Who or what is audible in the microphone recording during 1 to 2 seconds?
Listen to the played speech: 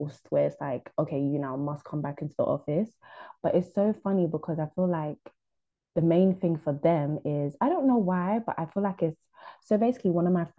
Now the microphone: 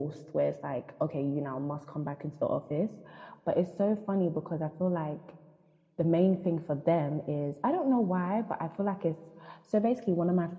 echo only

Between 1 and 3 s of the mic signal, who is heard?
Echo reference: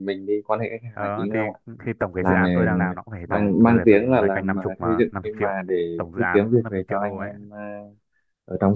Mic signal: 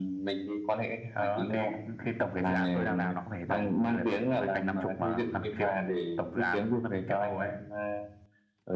echo only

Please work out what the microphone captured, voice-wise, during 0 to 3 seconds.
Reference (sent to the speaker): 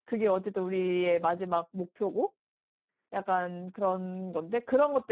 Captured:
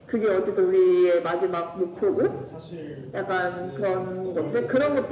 both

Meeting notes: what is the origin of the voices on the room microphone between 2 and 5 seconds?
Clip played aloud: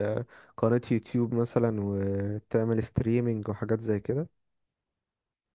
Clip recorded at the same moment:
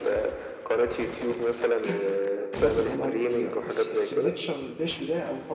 both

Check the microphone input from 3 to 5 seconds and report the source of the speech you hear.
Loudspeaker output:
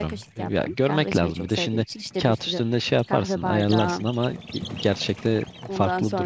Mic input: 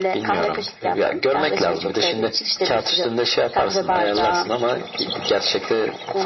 echo only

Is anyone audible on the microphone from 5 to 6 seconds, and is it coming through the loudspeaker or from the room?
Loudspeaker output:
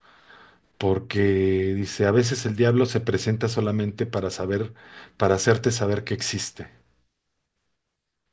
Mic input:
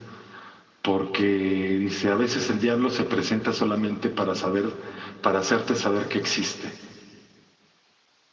echo only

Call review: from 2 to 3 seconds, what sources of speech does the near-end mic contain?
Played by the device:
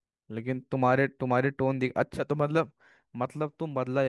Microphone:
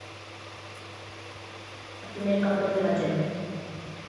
user only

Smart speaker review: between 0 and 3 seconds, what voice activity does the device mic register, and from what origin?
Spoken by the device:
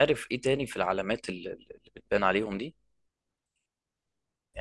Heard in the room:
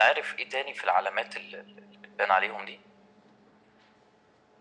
echo only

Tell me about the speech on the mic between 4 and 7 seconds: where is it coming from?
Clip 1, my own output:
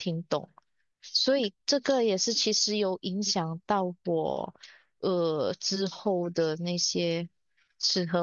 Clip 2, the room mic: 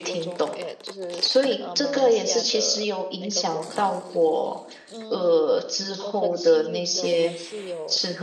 both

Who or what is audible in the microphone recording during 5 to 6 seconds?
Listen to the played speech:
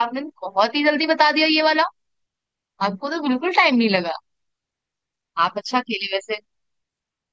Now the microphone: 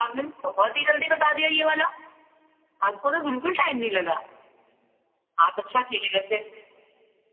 echo only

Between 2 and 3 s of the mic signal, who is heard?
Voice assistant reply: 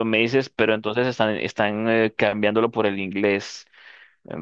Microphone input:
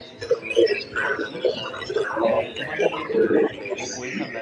both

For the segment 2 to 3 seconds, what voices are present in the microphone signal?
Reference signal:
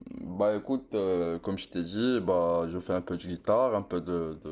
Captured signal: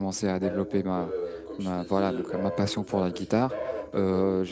both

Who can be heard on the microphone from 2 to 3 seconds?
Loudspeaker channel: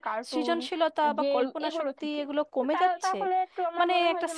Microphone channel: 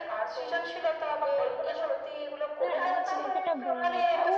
both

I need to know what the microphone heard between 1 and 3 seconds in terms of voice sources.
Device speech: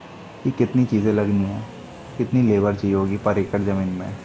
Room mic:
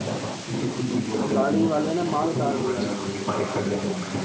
both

